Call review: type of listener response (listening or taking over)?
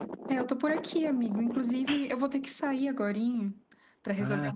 listening